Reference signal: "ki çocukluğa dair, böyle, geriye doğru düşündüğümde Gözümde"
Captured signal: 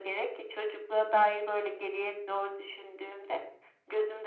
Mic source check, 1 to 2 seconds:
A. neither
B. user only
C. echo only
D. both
C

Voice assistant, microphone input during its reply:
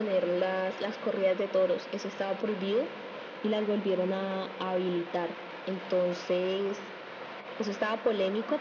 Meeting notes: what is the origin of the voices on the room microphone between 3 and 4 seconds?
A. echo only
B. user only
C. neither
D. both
A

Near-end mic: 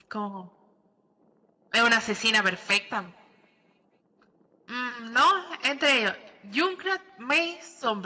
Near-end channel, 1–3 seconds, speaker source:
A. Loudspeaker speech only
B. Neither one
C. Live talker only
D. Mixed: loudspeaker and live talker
C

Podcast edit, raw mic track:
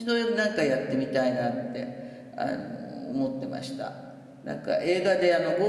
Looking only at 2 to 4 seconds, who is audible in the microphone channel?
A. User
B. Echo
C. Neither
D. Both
A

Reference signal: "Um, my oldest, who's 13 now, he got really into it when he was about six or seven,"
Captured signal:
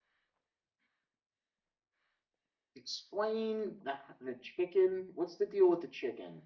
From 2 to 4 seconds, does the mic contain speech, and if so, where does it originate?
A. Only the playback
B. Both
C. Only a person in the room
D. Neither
C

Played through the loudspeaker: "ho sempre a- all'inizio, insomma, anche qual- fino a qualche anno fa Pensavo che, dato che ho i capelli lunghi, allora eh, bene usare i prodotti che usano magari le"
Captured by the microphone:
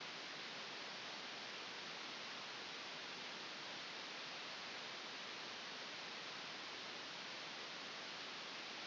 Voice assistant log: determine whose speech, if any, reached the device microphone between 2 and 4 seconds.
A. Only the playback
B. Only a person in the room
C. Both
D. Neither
D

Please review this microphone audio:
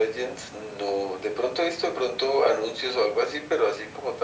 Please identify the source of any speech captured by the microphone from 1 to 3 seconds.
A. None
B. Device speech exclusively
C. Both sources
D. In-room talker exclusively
B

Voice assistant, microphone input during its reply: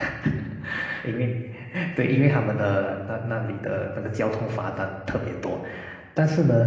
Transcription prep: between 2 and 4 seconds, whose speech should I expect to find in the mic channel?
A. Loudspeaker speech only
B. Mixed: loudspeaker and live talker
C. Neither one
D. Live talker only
D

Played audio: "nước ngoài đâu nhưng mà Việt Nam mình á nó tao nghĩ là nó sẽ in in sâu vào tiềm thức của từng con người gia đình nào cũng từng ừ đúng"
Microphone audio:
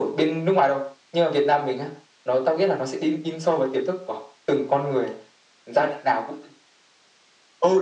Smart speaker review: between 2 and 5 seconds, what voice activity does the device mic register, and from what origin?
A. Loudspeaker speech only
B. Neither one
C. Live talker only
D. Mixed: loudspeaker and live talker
A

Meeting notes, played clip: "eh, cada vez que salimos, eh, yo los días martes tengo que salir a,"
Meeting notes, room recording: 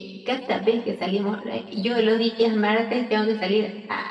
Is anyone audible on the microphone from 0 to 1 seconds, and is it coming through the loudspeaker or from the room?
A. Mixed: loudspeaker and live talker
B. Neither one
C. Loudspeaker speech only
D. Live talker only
C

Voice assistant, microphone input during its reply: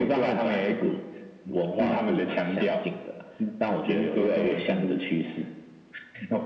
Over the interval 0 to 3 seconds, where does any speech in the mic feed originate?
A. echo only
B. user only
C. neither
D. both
A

